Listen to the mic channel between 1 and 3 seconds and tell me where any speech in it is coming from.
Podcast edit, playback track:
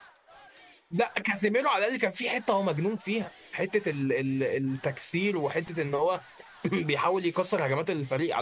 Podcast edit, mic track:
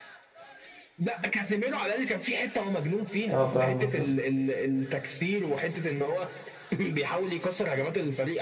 echo only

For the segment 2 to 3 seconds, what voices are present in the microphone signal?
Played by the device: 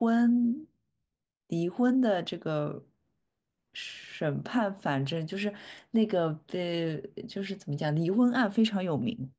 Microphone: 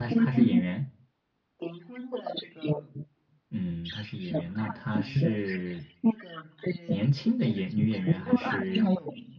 echo only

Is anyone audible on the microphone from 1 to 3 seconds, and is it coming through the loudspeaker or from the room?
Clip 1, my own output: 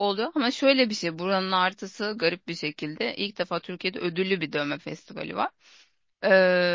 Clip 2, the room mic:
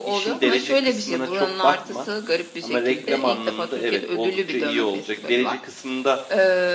both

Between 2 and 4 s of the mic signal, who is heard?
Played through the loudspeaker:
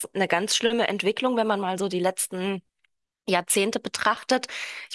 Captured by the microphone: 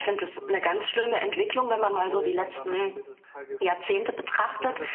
both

